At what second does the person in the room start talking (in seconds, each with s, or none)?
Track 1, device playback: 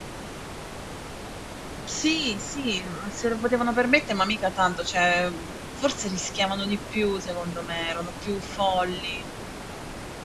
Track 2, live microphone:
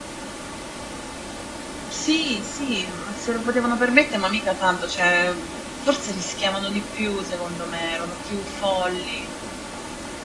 none